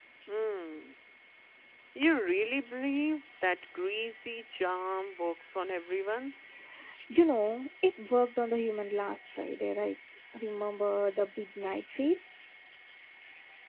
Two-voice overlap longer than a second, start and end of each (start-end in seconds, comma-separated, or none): none